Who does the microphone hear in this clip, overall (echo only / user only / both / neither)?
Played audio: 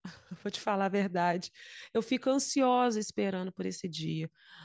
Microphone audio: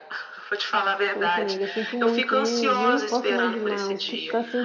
both